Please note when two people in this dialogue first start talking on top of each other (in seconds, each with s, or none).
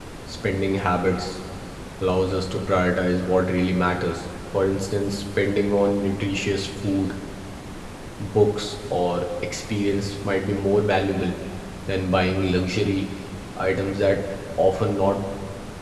none